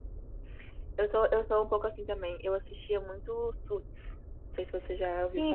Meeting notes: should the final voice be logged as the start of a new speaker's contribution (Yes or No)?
Yes